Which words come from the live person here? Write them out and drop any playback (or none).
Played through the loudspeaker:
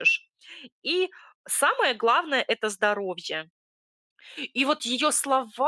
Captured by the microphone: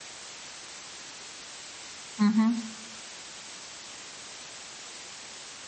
Мгм.